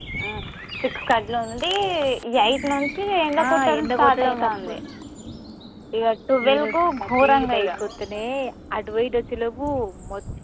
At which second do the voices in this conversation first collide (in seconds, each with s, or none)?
3.4 s